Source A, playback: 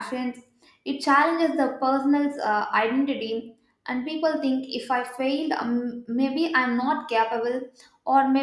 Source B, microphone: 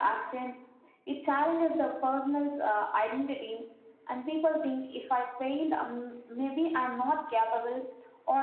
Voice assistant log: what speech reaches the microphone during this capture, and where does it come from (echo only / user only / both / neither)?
echo only